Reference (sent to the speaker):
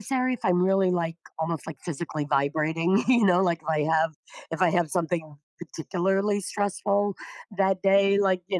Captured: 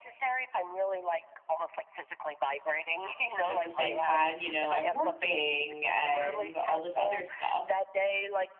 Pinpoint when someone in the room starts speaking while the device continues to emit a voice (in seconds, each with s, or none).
3.4 s